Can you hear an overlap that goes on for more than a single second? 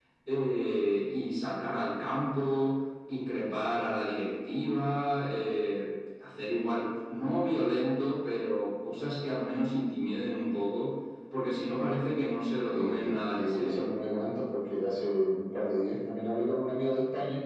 Yes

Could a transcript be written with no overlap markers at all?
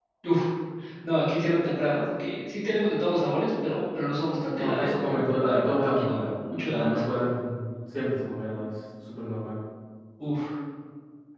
No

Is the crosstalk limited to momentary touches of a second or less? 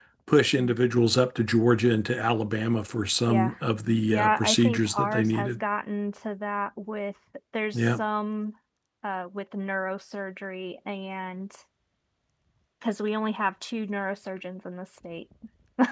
No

